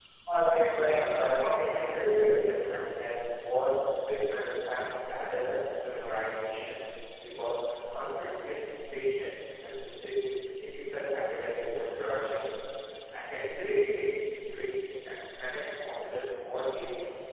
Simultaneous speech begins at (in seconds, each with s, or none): 0.7 s